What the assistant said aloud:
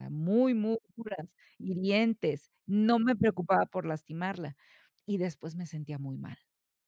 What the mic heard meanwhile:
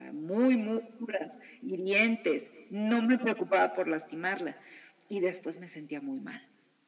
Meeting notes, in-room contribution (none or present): none